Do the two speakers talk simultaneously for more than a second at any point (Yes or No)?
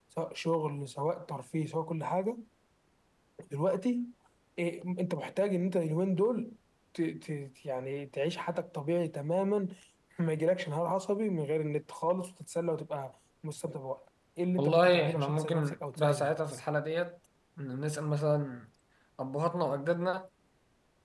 Yes